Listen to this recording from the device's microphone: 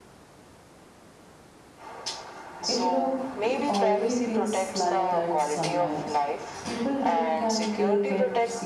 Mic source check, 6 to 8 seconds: both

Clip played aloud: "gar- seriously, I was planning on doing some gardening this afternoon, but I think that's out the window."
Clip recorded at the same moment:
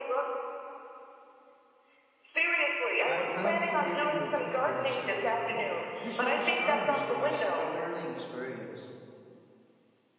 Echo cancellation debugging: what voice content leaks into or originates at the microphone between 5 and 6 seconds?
both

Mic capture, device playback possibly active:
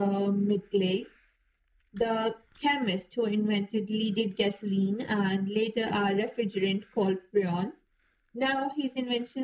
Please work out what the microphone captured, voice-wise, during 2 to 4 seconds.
echo only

